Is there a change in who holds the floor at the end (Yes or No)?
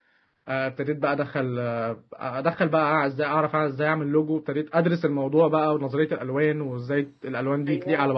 No